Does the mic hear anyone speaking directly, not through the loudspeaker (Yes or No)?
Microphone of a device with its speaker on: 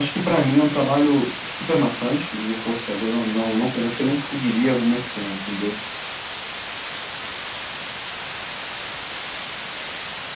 No